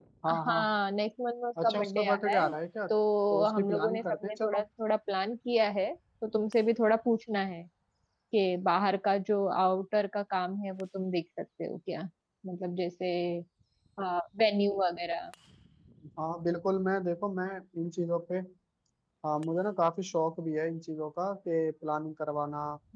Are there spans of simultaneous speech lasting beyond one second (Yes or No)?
Yes